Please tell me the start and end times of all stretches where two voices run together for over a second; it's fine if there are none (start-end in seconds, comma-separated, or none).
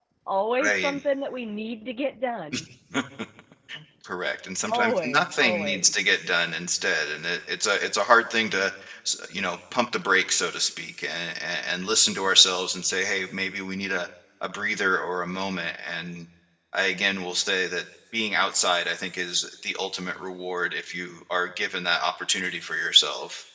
4.7-5.9